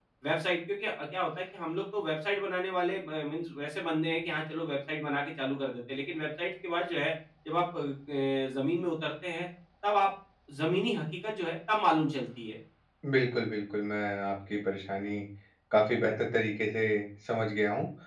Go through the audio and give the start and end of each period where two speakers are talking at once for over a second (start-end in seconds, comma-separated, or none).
none